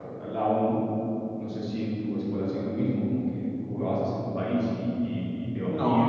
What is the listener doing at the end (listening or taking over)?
taking over